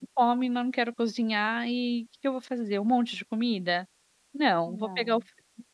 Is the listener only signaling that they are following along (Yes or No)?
Yes